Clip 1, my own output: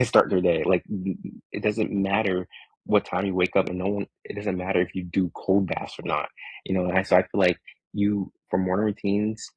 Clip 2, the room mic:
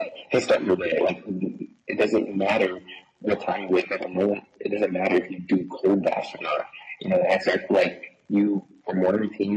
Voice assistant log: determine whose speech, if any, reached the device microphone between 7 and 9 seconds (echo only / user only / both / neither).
echo only